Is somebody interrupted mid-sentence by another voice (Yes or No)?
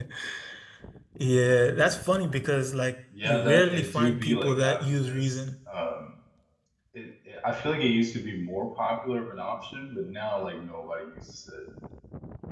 Yes